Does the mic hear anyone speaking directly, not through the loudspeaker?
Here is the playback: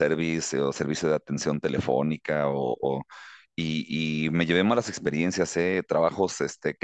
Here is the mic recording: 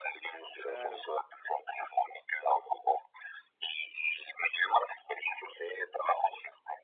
Yes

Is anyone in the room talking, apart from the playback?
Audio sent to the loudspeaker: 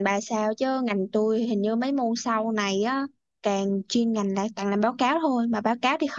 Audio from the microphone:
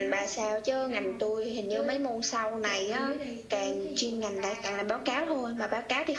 Yes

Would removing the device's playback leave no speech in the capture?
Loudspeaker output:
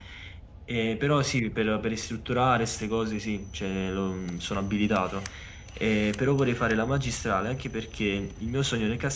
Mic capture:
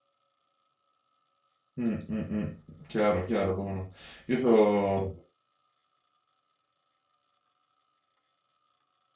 No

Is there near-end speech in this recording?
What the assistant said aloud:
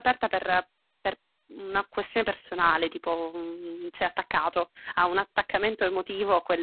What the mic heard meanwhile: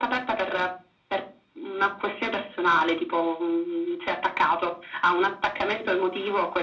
No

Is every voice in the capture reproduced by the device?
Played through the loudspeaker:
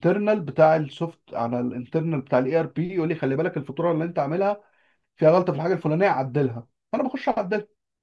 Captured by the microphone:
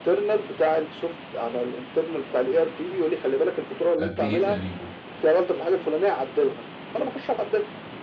No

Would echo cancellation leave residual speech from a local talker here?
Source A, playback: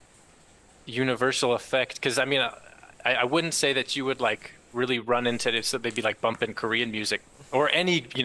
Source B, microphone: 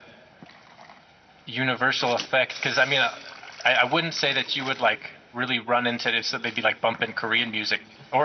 No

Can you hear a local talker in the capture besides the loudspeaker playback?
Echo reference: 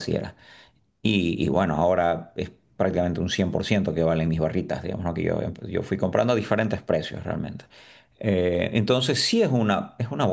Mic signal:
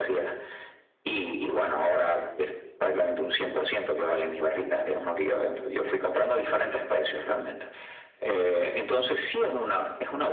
No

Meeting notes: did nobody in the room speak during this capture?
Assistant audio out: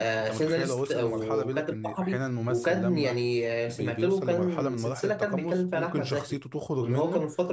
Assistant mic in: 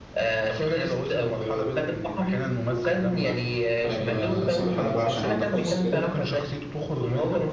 No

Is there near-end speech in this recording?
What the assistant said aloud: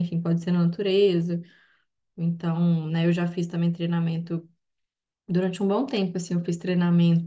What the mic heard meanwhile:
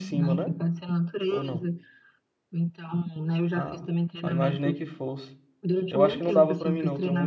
Yes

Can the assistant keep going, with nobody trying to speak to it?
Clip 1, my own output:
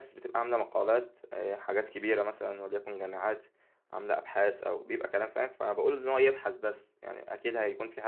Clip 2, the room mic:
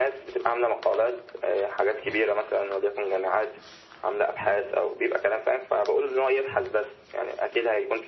Yes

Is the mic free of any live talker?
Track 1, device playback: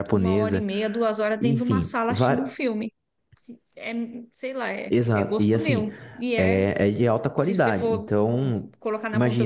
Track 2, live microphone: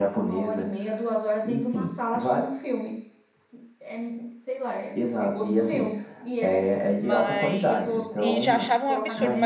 No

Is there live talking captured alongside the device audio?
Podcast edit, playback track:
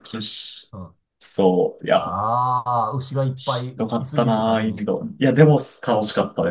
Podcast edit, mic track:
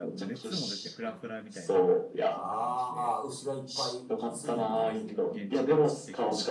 Yes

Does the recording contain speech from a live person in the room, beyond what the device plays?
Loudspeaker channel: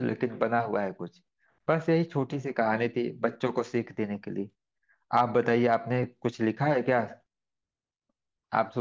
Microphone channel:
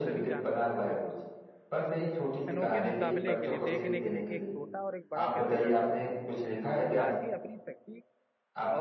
Yes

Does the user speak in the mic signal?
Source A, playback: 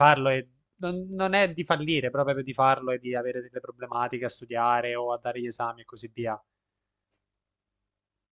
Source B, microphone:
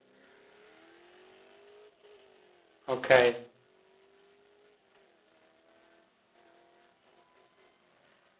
Yes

